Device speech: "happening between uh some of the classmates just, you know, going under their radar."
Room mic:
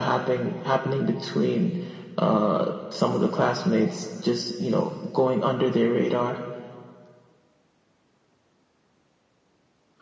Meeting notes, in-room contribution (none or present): none